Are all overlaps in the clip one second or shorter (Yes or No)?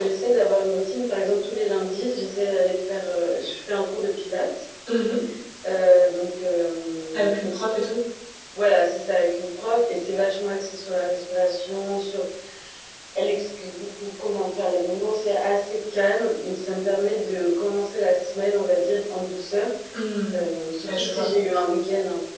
Yes